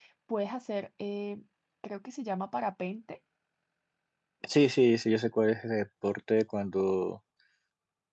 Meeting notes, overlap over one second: none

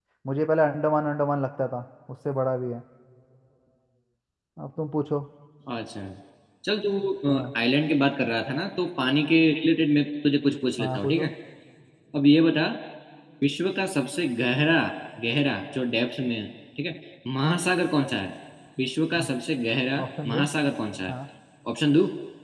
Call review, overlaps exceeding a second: none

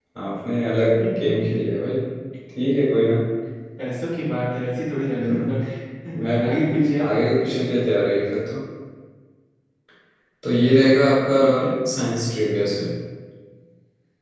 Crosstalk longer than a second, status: none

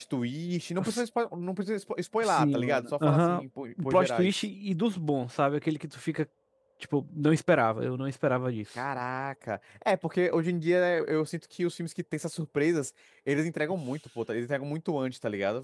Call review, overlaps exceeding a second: present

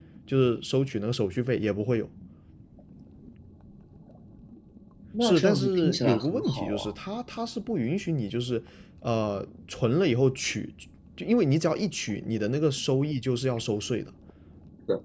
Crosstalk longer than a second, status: present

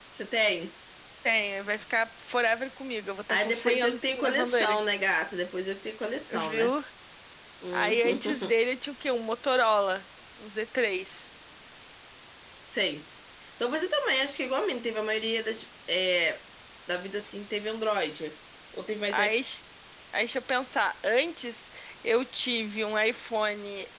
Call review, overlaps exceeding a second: present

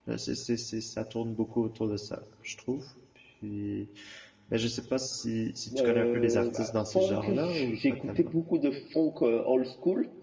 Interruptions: present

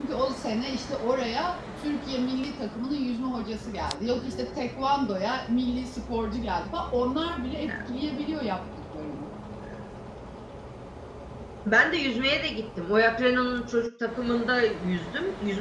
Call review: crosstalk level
none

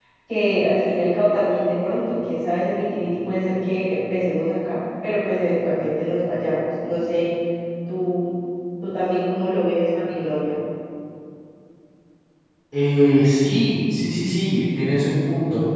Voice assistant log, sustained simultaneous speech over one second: none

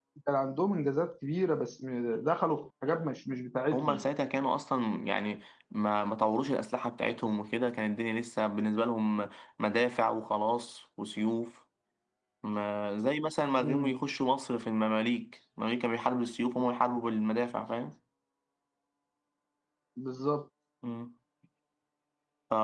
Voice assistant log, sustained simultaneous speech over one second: none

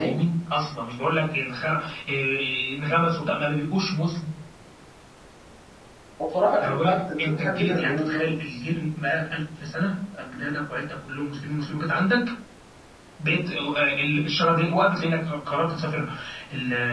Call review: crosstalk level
present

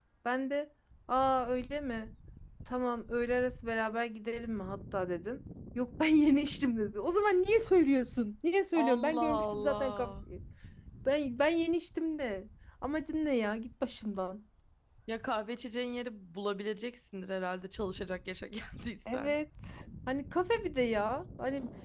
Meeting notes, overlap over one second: present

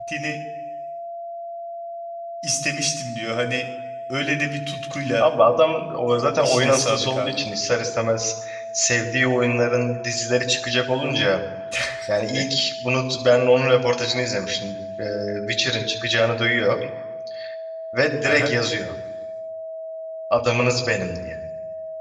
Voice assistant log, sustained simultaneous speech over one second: present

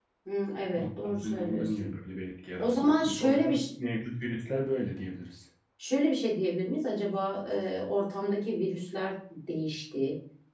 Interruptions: present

